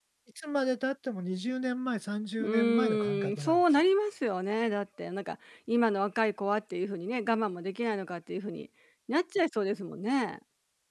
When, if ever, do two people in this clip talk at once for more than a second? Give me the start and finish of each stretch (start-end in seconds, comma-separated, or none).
2.4-3.8